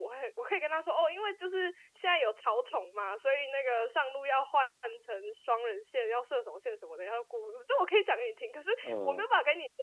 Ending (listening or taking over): listening